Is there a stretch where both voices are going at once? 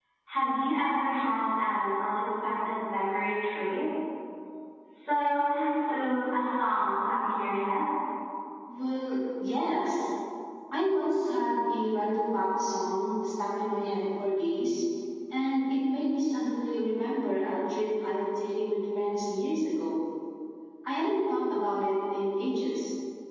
No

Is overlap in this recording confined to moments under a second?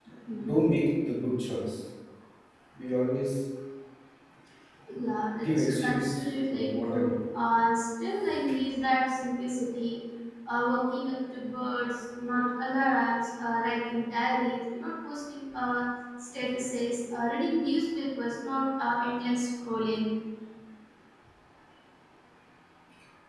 No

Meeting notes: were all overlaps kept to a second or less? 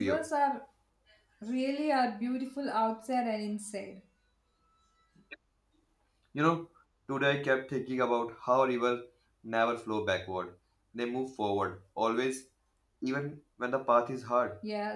Yes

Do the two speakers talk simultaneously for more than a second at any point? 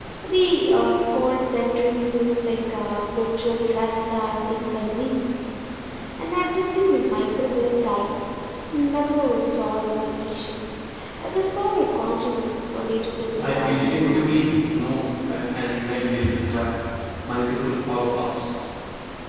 Yes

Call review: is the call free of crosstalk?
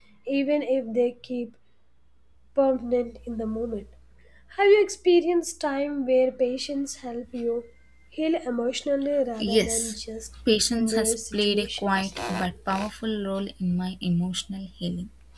No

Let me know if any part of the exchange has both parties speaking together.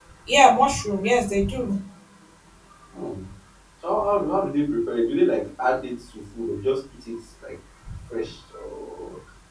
No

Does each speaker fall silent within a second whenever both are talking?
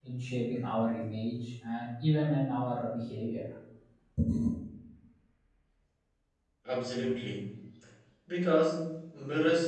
Yes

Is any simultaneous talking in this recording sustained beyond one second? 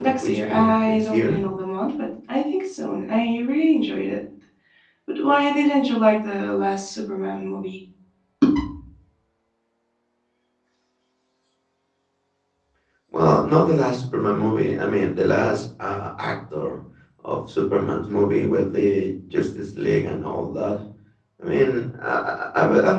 Yes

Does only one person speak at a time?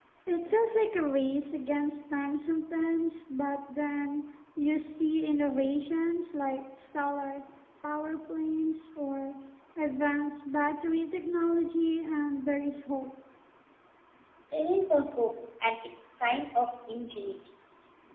Yes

